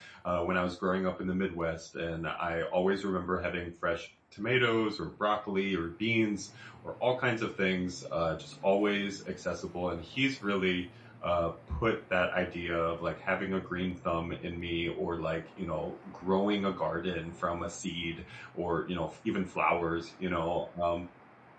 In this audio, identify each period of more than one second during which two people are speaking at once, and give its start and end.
none

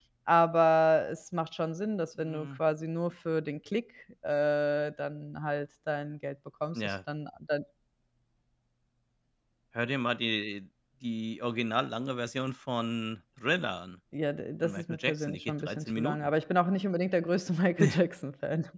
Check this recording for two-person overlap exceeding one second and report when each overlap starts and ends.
14.6-16.3

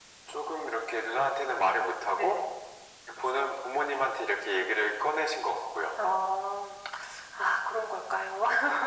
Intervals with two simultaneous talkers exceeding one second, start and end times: none

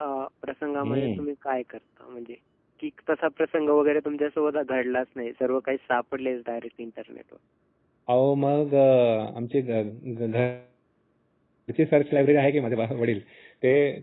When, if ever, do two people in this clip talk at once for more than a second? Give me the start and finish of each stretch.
none

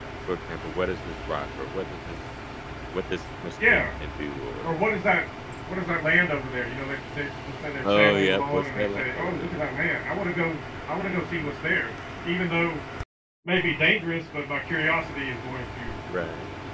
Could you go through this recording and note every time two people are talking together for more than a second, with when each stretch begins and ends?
7.8-9.8

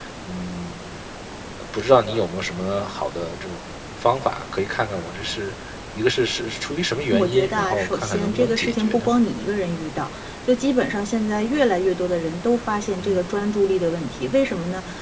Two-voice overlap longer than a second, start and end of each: 7.1-9.1

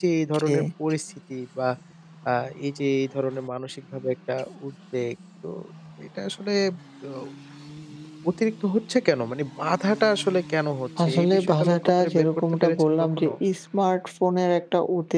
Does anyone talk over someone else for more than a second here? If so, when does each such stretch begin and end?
11.0-13.3

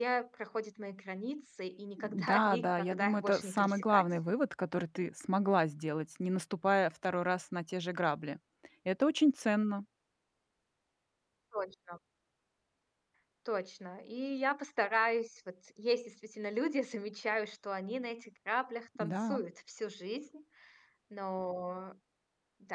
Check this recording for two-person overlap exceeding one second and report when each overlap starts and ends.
2.0-4.1

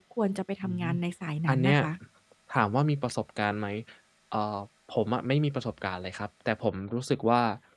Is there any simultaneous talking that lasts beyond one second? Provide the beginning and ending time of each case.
none

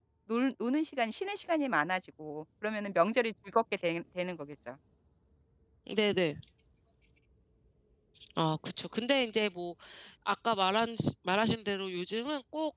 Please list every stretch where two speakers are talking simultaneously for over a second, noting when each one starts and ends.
none

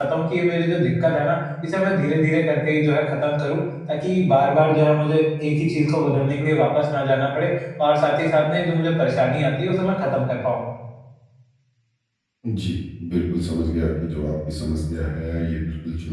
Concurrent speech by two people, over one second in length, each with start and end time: none

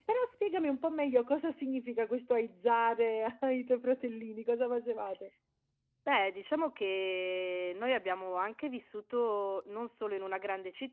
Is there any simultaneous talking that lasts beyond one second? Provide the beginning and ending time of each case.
none

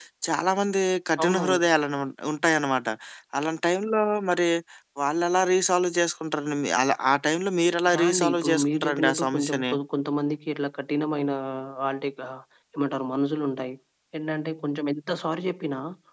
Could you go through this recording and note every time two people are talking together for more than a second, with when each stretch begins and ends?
7.9-9.7

